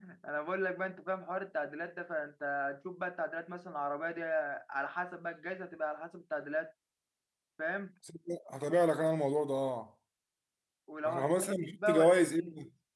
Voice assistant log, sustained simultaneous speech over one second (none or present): present